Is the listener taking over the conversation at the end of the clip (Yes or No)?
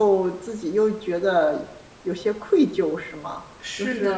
Yes